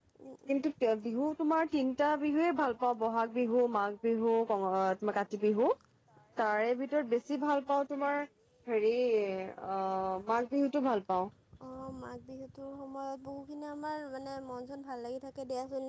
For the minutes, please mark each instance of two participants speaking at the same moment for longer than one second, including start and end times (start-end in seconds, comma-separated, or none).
none